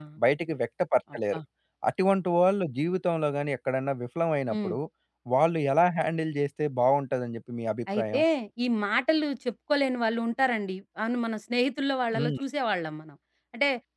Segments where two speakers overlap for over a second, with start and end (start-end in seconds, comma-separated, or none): none